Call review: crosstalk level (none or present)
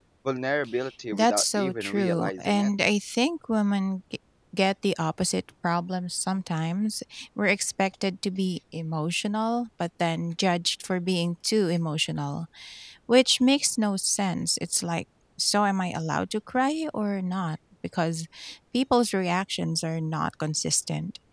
present